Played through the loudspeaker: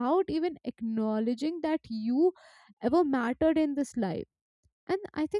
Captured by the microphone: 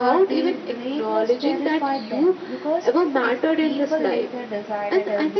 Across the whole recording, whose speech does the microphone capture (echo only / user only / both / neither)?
both